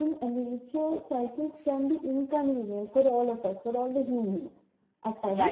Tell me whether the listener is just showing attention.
No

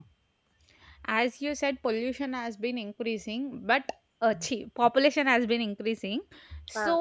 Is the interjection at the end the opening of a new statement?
No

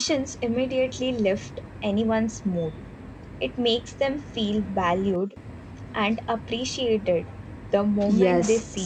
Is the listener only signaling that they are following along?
No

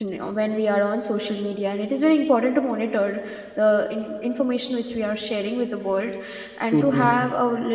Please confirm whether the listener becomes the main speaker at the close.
No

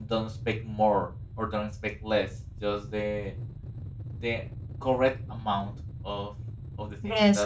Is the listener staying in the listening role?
No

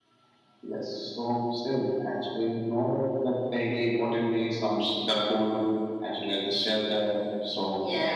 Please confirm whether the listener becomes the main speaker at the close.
Yes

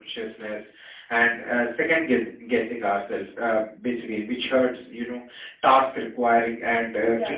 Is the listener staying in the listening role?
Yes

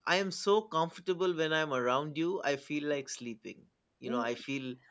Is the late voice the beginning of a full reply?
No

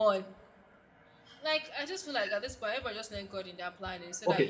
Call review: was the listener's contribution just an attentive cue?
No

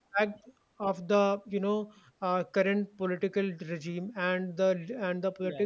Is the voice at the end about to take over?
No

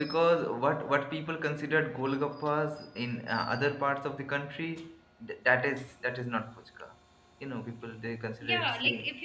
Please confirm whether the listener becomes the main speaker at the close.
Yes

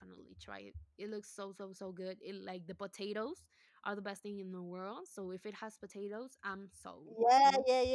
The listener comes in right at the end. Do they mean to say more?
Yes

